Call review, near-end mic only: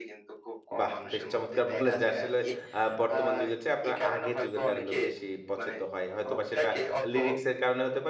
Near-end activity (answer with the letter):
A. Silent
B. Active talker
B